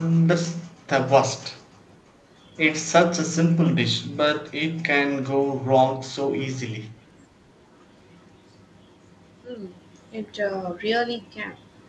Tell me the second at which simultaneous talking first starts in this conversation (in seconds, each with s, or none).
none